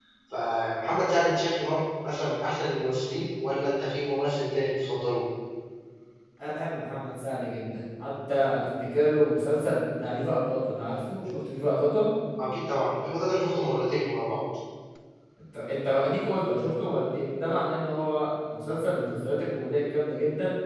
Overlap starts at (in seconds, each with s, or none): none